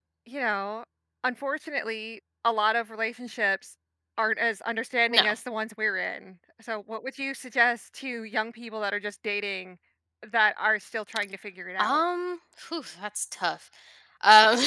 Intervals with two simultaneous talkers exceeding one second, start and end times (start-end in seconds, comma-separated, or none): none